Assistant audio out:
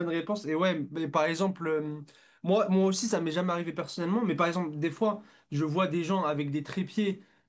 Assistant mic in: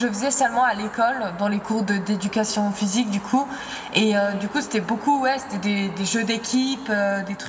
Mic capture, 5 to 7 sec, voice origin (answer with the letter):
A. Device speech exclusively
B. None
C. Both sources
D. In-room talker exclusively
D